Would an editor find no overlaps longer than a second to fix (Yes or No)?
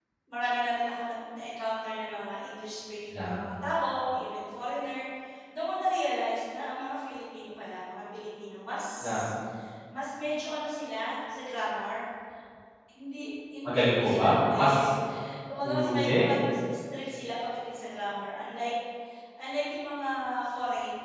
No